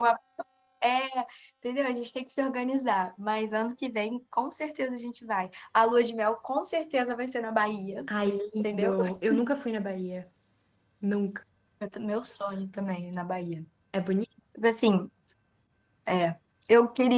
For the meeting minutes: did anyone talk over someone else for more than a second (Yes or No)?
No